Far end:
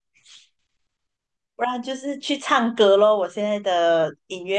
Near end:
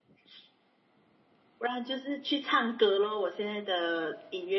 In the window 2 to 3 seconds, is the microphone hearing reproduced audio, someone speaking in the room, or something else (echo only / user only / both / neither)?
echo only